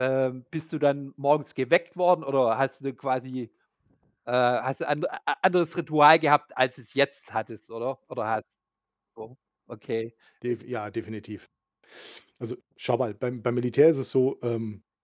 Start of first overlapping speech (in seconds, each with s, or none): none